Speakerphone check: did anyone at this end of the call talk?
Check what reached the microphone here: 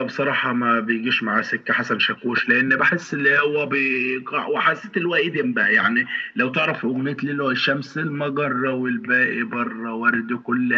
No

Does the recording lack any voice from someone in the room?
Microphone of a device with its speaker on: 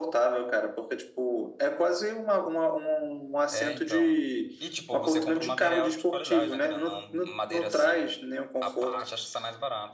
No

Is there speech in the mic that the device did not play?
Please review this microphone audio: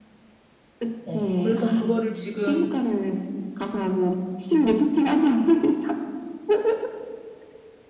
Yes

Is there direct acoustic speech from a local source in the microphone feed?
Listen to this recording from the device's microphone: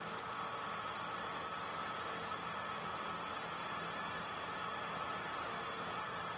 No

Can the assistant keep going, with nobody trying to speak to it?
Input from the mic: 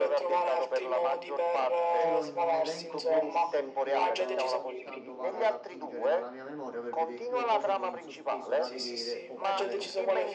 No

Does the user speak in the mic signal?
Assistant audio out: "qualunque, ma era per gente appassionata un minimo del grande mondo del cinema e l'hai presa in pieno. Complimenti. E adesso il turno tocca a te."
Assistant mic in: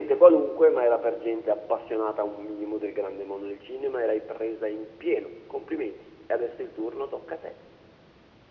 No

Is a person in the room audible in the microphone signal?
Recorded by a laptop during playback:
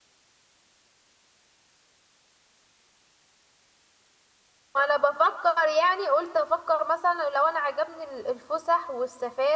Yes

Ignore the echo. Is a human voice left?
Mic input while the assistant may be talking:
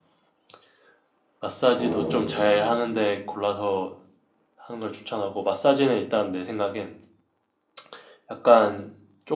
Yes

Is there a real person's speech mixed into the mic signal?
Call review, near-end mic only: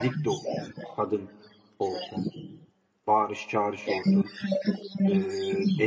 Yes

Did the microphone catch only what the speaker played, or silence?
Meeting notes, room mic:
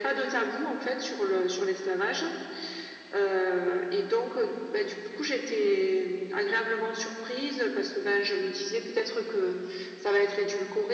Yes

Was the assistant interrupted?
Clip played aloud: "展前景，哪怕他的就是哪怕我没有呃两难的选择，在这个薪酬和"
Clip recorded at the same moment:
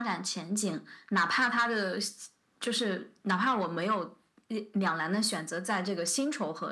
No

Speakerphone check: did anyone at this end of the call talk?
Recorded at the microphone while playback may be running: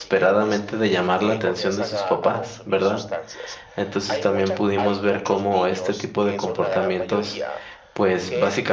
Yes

